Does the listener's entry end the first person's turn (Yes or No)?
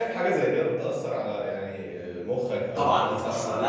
Yes